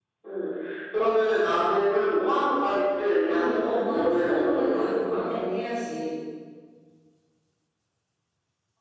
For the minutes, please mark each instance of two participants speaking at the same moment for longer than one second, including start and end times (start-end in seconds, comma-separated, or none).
3.3-5.3